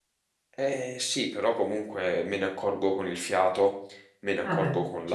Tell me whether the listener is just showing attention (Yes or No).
Yes